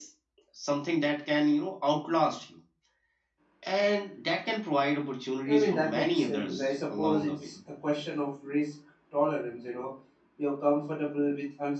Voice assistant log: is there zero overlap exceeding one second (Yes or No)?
No